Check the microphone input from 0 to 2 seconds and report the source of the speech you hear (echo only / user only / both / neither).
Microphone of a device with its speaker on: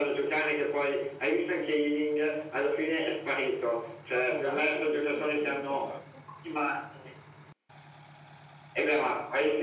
echo only